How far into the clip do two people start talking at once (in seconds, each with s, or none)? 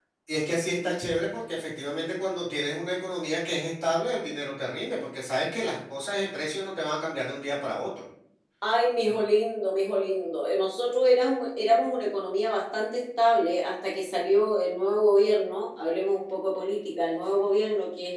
none